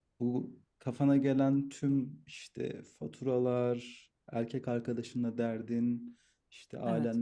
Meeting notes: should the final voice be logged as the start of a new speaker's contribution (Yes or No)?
No